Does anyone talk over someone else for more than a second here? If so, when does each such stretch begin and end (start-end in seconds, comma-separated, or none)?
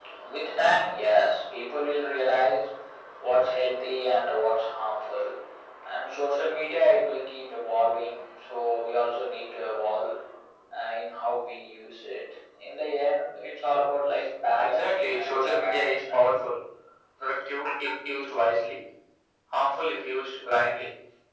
14.6-16.3